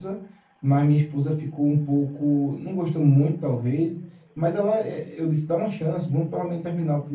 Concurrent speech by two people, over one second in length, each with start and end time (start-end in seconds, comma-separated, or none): none